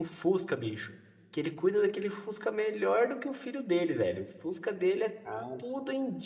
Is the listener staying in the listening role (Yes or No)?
Yes